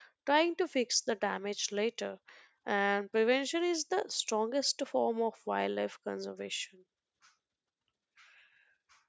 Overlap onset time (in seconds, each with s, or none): none